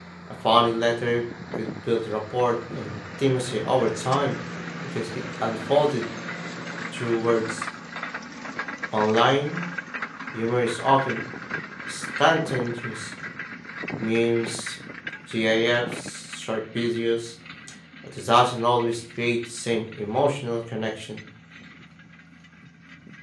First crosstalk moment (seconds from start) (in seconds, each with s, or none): none